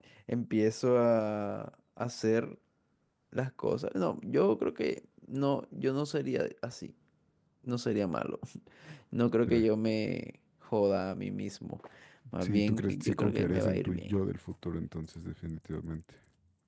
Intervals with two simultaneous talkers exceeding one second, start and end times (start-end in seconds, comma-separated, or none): 12.4-14.2